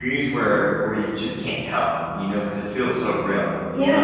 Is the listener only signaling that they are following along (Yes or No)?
No